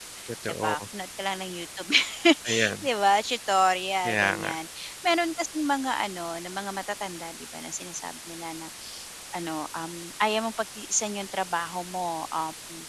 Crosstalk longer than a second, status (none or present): none